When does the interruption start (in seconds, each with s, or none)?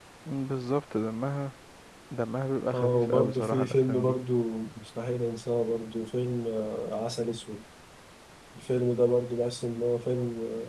2.7 s